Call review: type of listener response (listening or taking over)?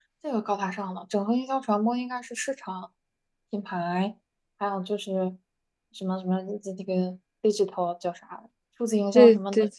taking over